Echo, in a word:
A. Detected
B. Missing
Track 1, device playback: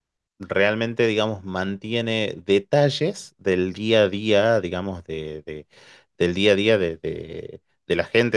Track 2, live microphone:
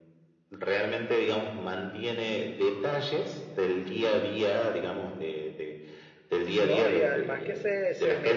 A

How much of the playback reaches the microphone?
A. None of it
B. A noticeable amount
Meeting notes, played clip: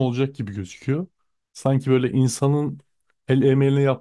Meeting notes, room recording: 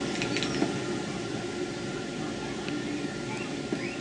A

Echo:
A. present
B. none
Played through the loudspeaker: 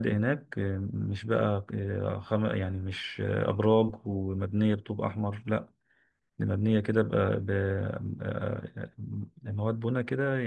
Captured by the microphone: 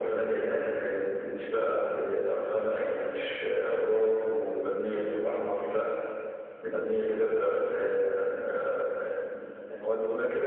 A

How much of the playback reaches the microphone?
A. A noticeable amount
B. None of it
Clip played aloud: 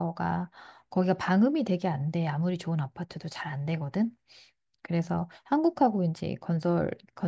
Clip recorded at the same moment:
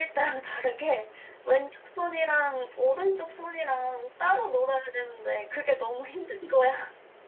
B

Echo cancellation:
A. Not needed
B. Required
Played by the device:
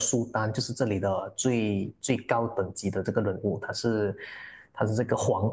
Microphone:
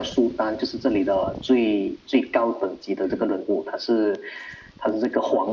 B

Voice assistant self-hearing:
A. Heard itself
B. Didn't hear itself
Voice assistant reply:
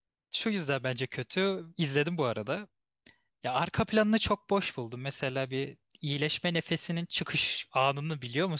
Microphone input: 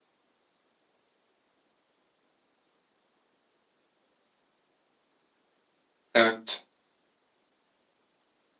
B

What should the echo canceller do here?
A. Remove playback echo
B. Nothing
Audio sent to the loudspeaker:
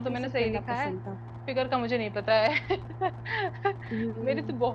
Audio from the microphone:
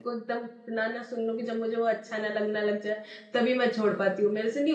B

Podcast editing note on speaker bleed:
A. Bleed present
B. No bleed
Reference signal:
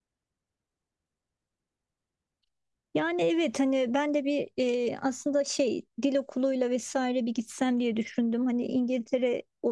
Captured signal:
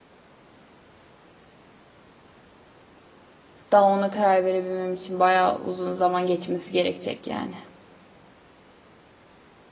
B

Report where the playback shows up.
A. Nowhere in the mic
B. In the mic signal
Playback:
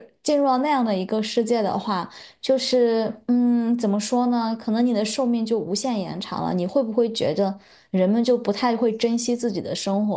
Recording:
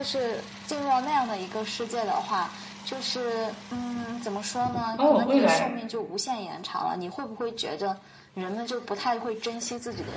B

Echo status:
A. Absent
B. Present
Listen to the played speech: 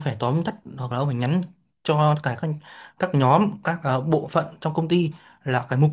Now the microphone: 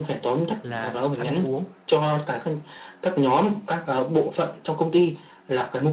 B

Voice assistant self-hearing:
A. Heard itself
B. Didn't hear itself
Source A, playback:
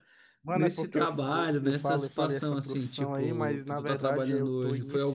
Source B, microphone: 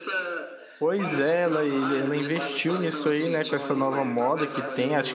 A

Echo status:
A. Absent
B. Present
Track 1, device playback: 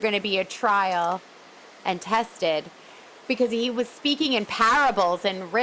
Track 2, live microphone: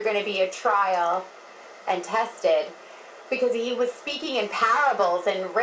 B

